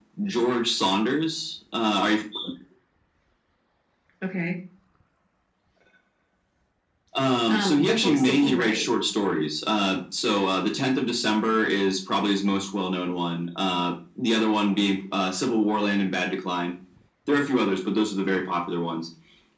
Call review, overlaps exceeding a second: present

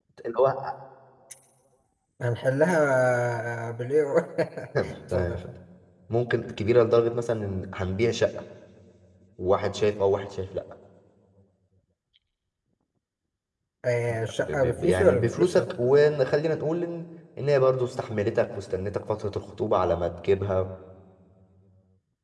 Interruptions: present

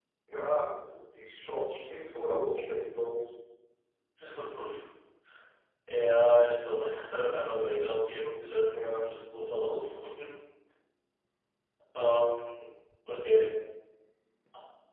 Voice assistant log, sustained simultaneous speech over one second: none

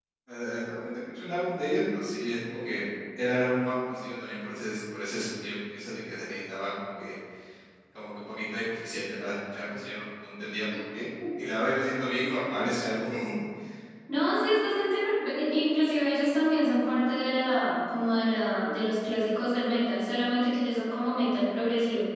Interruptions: none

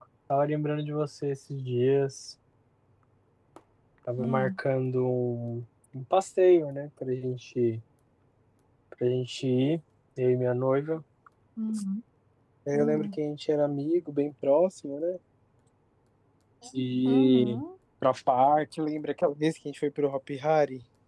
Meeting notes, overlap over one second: none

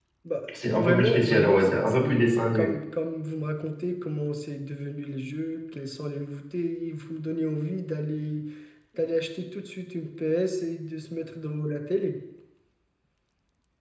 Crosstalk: present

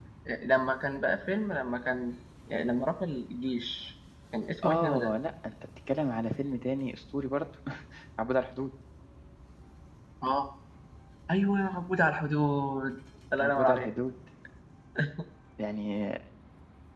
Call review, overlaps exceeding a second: none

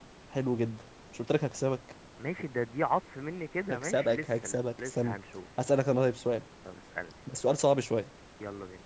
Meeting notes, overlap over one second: present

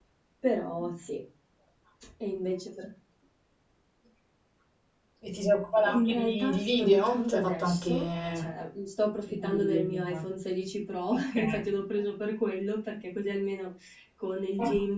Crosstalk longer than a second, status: present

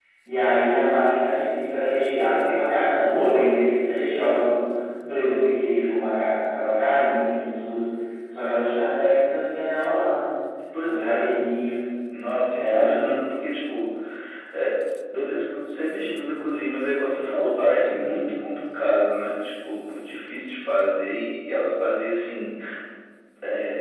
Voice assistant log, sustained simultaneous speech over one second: none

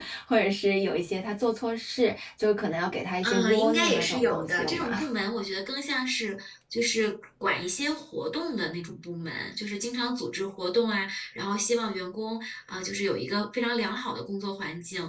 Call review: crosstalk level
present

